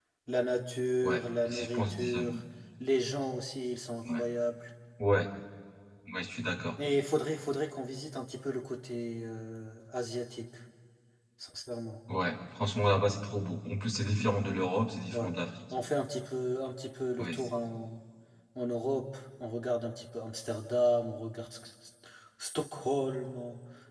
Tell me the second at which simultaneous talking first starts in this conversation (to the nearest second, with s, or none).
1 s